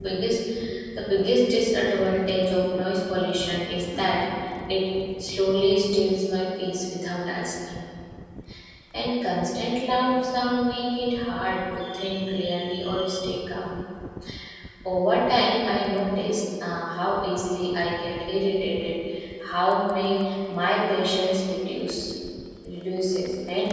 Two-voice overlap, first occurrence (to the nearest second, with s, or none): none